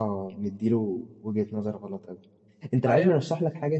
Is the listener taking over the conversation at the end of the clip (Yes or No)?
No